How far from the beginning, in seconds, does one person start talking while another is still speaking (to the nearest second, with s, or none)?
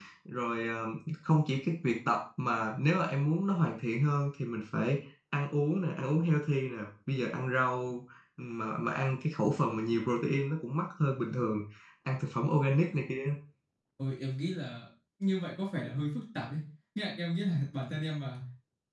none